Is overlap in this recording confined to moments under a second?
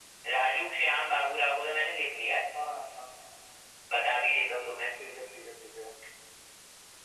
Yes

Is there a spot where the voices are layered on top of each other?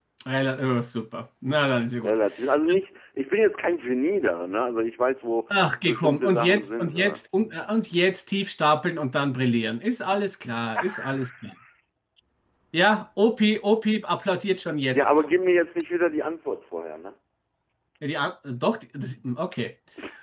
Yes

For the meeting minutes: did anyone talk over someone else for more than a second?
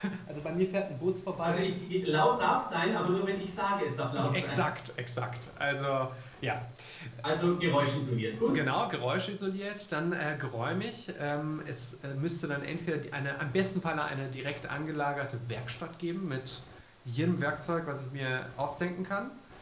No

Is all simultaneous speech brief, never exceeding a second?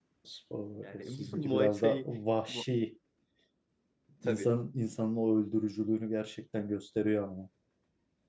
No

